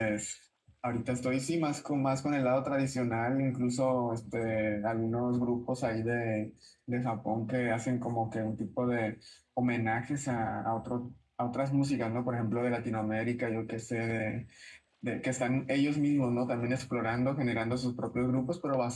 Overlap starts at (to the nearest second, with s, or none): none